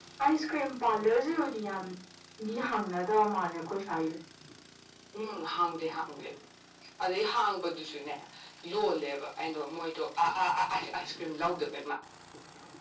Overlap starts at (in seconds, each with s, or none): none